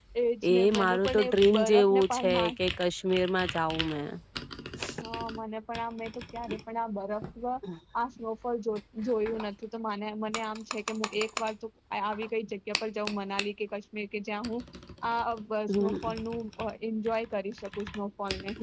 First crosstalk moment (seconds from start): 0.5 s

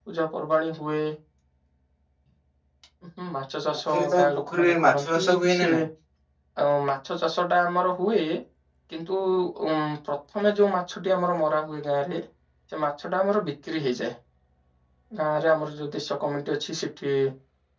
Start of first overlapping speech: 3.9 s

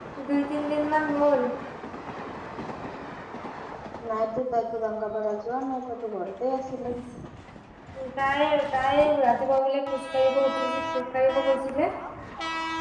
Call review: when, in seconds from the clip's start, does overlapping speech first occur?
none

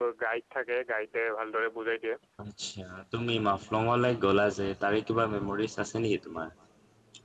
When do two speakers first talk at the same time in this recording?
none

